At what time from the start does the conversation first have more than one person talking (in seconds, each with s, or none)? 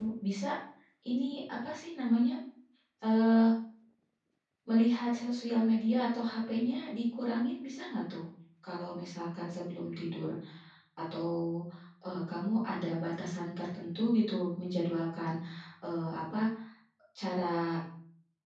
none